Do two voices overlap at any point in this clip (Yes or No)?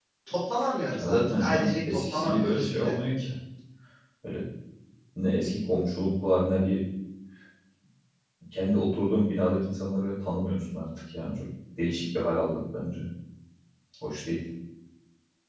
Yes